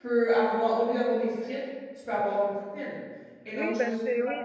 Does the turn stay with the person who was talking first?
No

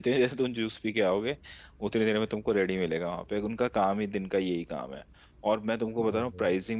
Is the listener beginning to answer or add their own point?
No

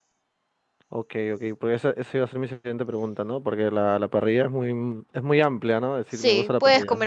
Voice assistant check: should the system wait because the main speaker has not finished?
No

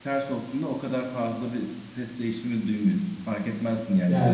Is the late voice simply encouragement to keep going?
No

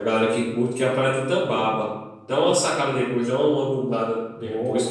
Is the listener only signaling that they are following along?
No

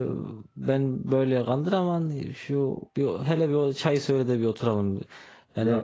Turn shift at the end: No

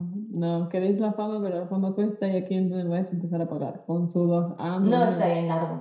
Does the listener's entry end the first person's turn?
Yes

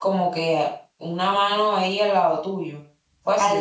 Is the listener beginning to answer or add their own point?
Yes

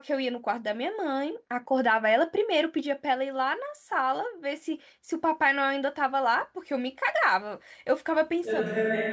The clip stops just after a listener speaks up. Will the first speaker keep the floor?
Yes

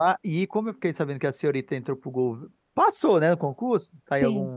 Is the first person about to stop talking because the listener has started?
No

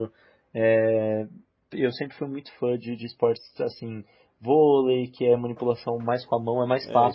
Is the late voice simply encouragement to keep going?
No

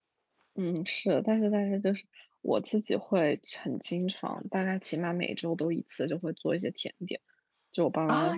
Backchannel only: No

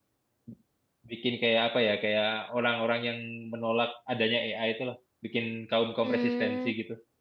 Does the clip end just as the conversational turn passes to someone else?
Yes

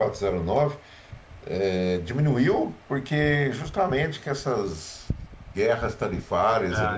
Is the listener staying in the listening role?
Yes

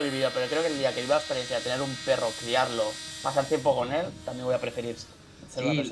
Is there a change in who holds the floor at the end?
Yes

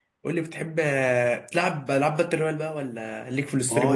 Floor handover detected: Yes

